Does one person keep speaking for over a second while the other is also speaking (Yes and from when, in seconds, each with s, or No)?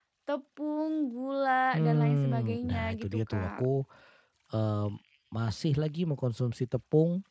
Yes, from 1.7 s